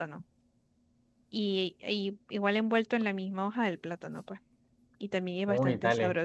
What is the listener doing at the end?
taking over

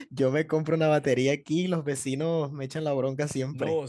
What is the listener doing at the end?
taking over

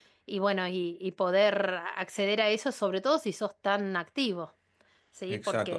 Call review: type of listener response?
taking over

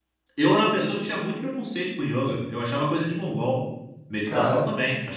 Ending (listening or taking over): taking over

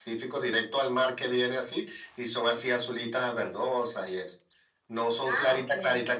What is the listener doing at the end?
listening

